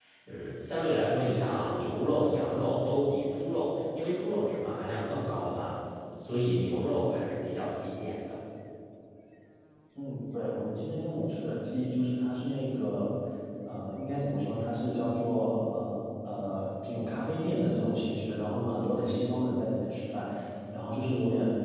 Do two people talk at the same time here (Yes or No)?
No